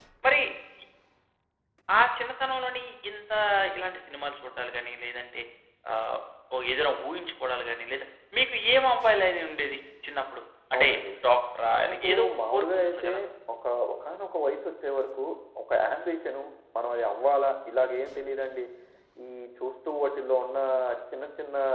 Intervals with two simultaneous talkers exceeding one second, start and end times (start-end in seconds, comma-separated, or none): 11.8-13.1